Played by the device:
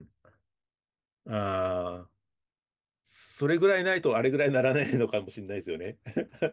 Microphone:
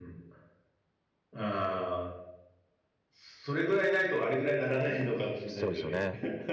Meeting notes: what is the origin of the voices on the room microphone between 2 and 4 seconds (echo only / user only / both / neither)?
echo only